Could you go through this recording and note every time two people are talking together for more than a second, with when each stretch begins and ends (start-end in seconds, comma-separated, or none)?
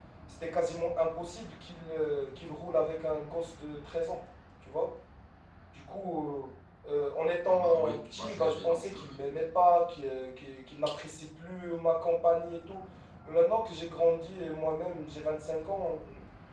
7.5-9.1